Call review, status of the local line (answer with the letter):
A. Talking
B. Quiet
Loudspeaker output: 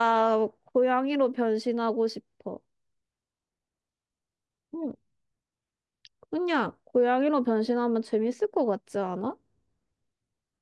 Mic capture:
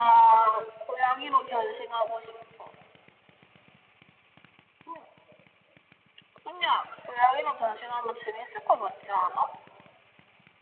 B